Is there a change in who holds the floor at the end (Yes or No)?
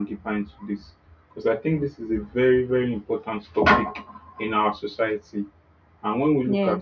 No